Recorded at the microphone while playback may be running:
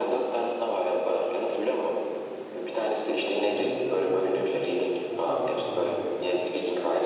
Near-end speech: present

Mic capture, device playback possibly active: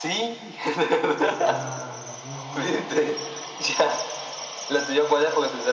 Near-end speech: present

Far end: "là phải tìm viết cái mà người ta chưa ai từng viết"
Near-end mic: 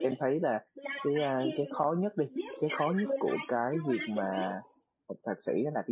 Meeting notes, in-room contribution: present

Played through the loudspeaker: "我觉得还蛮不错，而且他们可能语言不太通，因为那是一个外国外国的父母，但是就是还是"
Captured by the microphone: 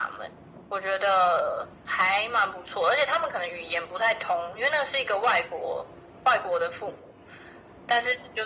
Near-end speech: none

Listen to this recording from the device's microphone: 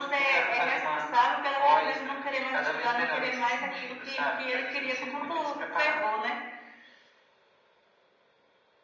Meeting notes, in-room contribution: none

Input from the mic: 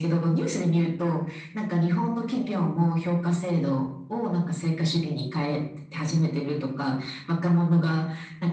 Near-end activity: none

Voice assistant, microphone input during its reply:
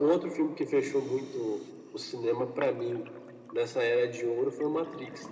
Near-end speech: none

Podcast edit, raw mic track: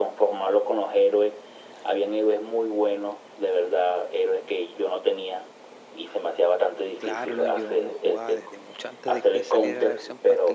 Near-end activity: present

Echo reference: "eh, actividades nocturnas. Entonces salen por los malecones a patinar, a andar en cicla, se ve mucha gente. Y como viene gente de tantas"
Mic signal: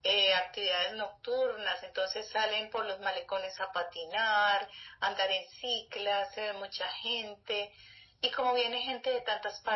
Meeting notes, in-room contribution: none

